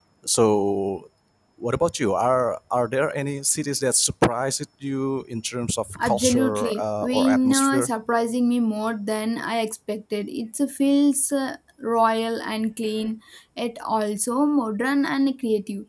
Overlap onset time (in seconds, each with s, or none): 6.0 s